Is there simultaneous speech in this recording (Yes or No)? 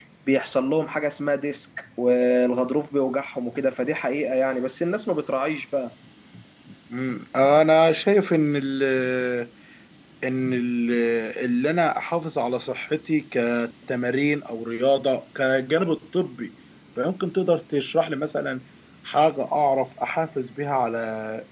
No